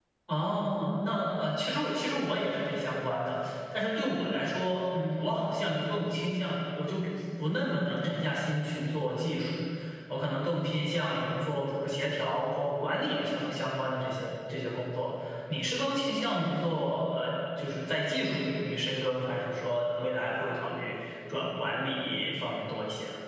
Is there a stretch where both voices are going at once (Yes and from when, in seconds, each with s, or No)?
No